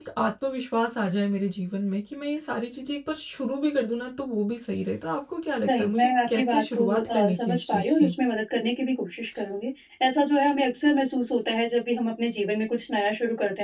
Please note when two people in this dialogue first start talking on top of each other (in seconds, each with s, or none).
5.7 s